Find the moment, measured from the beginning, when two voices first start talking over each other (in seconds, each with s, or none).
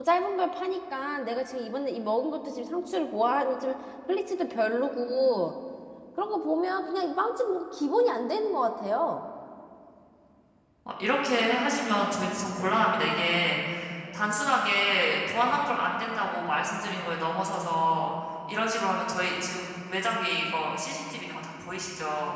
none